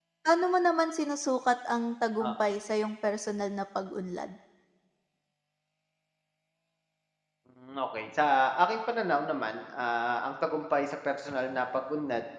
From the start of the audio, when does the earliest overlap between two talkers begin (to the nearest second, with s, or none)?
none